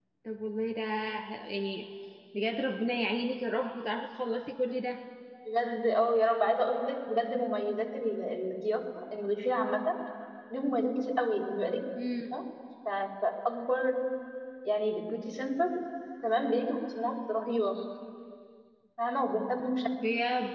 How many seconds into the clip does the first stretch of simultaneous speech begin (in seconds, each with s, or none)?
none